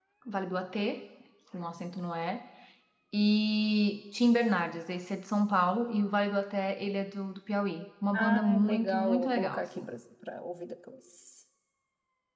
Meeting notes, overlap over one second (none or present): present